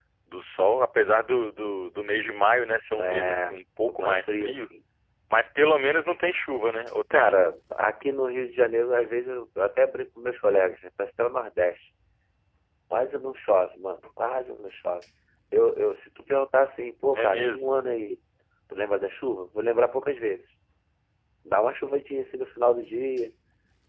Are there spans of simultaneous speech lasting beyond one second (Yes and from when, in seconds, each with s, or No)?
Yes, from 3.0 s